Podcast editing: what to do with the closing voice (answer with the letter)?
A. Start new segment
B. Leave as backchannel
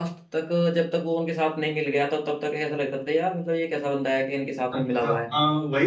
A